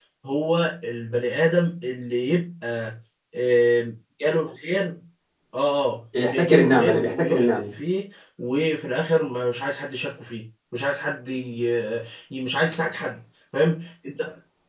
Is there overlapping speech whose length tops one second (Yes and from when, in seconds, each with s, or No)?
Yes, from 6.2 s